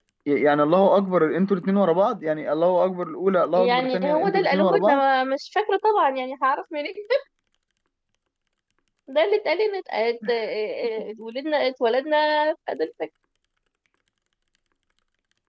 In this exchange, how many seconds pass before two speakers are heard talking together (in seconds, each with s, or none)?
3.5 s